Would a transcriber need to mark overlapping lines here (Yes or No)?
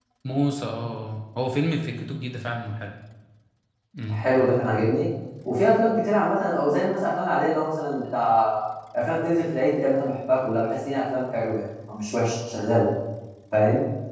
No